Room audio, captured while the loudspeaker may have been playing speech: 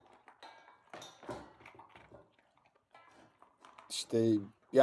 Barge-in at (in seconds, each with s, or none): 3.9 s